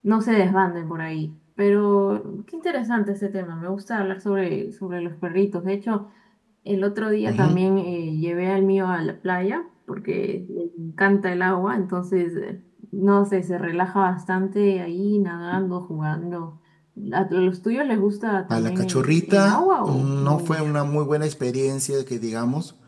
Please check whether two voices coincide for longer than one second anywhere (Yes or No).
Yes